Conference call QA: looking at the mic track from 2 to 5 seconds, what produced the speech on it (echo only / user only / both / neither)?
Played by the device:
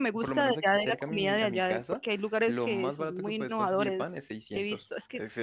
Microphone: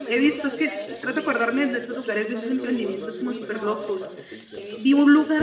both